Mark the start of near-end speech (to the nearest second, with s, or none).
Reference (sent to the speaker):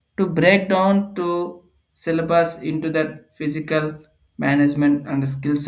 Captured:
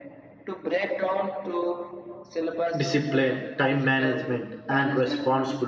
3 s